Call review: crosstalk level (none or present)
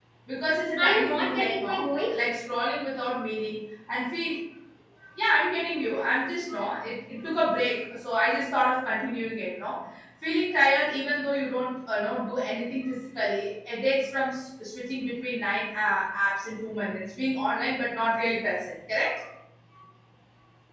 present